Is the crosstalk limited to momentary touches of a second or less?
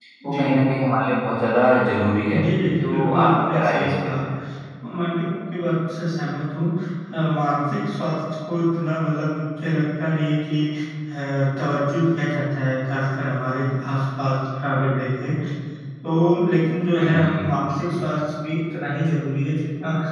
No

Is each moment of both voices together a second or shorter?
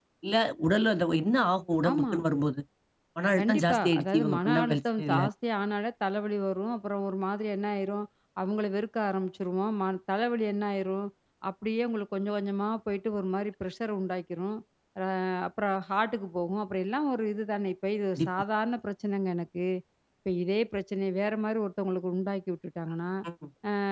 No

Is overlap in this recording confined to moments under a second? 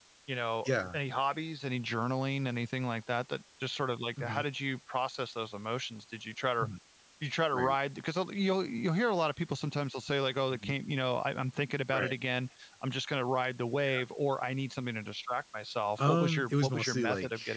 No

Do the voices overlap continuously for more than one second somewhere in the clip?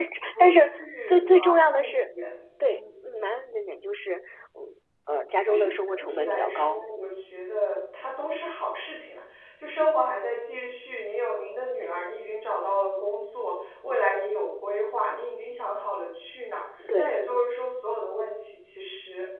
Yes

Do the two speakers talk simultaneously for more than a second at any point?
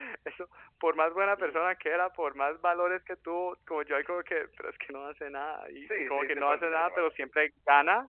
Yes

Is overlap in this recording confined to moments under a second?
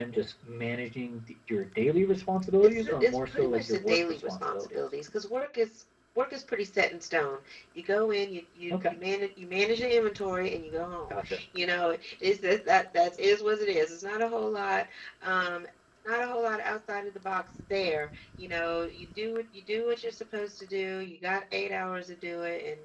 No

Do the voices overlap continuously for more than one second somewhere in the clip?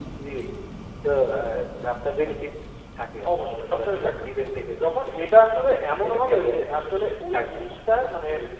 Yes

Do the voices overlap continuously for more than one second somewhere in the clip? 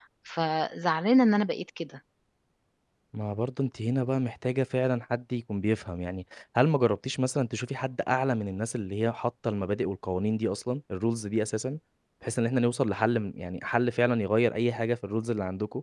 No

